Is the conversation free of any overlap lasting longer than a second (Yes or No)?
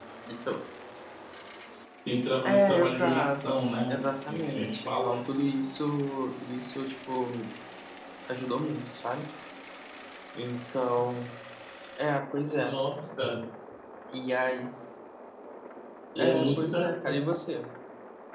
No